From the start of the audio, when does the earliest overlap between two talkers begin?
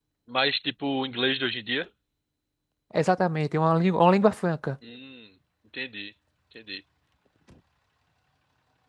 none

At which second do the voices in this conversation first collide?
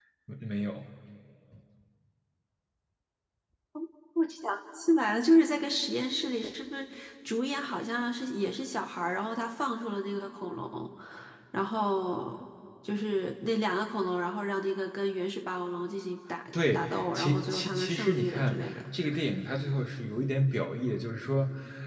16.5 s

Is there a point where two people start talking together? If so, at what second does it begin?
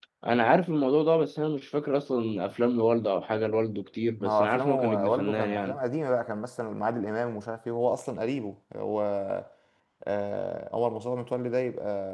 4.2 s

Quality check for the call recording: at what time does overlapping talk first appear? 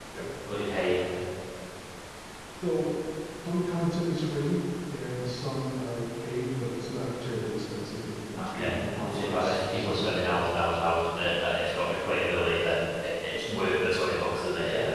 8.3 s

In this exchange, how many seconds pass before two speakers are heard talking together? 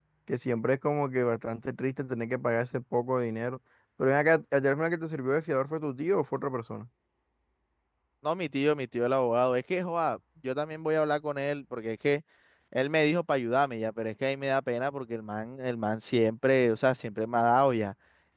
none

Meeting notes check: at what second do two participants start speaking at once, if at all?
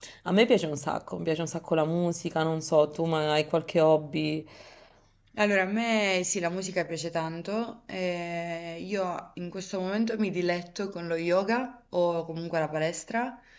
none

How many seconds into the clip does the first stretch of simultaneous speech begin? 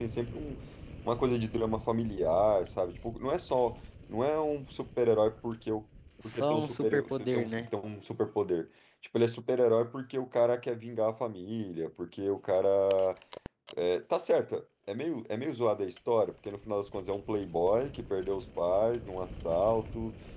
6.2 s

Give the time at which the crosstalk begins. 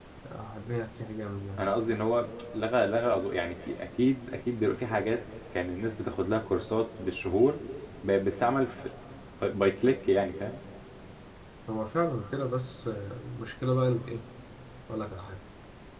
none

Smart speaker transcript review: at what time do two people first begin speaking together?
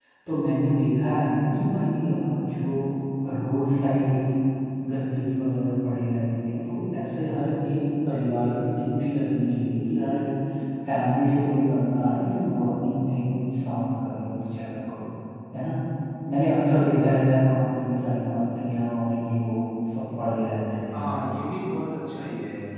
none

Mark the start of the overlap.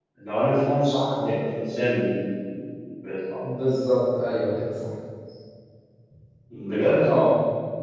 none

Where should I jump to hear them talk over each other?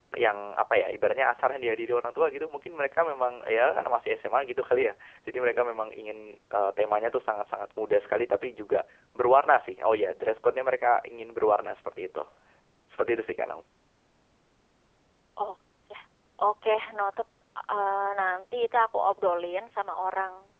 none

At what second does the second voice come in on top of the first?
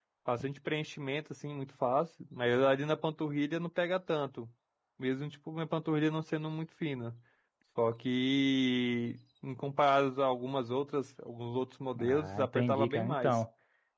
11.9 s

